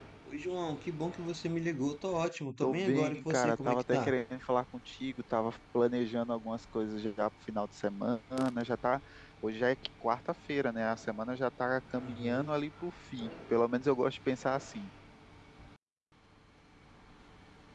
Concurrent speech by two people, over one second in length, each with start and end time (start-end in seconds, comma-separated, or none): 2.6-4.1